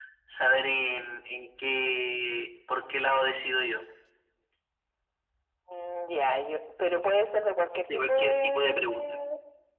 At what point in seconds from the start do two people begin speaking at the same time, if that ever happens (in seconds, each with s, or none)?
7.9 s